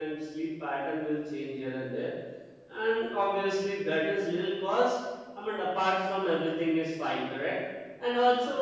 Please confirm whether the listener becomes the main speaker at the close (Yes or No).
No